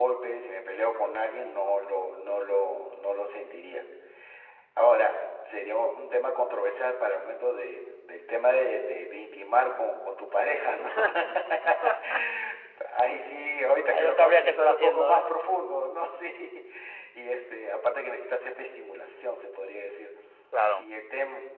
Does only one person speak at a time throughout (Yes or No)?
No